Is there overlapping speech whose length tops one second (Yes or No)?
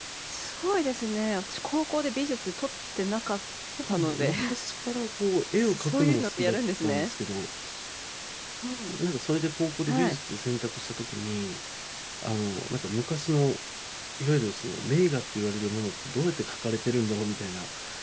Yes